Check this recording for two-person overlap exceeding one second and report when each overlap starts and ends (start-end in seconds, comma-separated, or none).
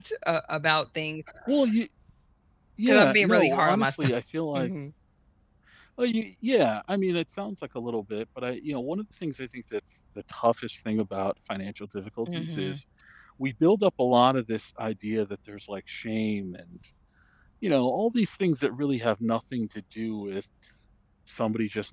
2.9-4.1